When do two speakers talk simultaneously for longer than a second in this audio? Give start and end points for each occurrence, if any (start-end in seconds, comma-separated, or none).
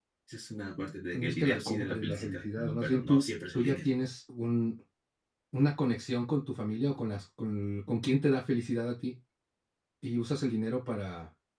1.1-3.9